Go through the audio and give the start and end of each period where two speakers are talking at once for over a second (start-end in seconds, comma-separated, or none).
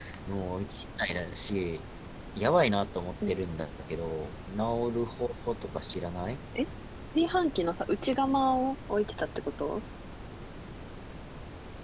none